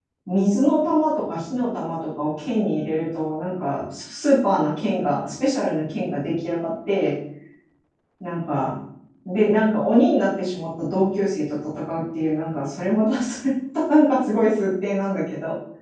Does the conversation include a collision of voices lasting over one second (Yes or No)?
No